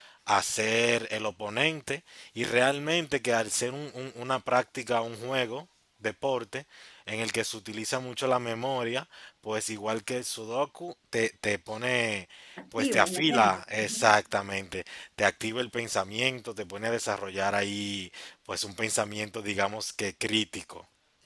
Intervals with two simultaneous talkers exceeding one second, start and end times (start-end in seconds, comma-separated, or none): 12.8-14.1